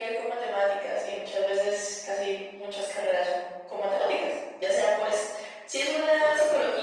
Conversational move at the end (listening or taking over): listening